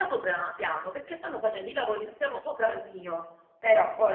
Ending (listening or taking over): listening